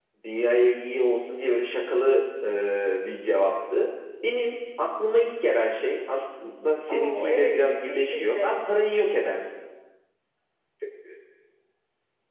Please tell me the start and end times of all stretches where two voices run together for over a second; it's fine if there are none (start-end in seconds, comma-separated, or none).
6.9-8.6